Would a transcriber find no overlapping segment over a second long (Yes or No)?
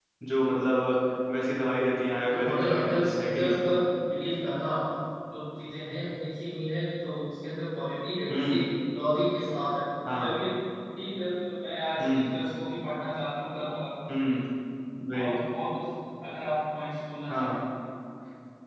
No